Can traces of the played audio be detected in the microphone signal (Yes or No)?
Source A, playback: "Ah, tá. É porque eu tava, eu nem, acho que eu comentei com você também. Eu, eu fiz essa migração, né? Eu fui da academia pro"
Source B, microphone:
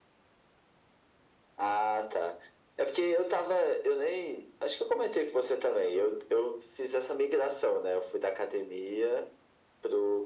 Yes